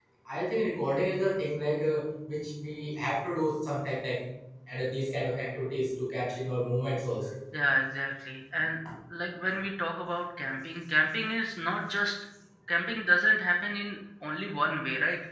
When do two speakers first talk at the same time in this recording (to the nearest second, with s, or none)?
none